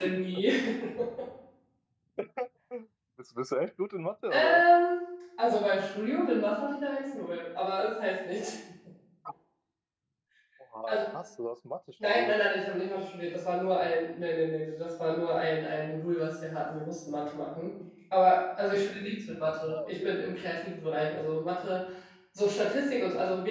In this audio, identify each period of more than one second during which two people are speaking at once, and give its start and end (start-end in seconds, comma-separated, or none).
none